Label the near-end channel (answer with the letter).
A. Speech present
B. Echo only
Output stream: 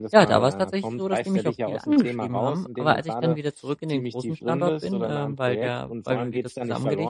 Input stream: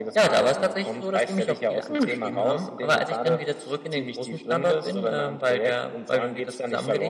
B